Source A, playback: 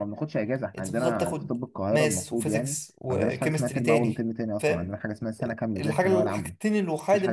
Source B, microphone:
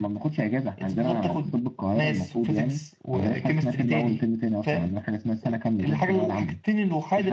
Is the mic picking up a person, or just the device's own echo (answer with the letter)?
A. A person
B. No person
B